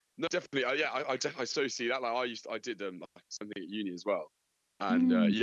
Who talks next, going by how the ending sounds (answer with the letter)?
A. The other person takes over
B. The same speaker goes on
B